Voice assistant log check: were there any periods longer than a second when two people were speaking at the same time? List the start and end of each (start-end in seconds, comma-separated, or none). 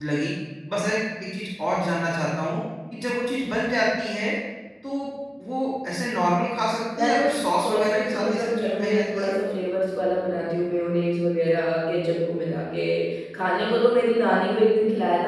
7.0-9.3